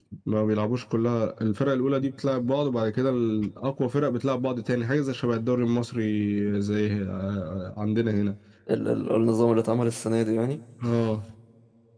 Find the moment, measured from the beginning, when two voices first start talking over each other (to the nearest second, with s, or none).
none